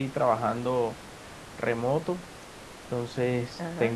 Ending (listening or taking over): listening